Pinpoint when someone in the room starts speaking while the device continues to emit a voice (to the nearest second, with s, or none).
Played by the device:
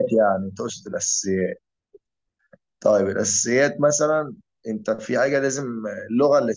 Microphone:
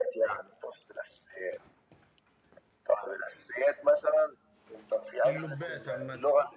5 s